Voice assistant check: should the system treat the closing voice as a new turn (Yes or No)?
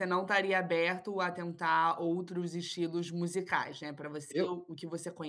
No